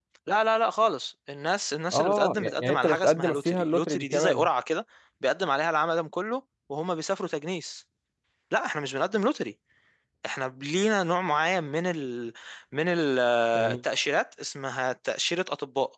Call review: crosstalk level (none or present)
present